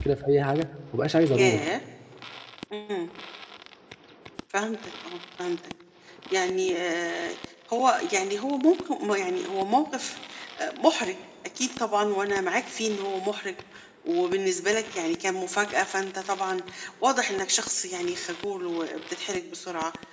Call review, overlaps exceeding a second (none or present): none